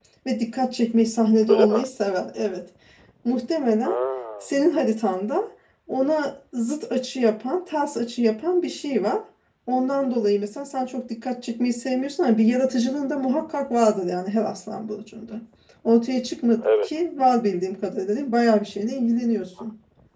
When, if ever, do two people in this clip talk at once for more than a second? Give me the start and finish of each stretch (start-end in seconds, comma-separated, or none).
none